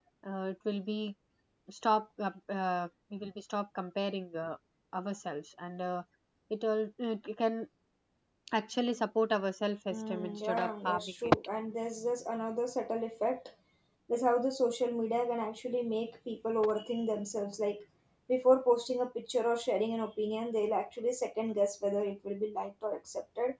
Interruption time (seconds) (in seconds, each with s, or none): 9.9 s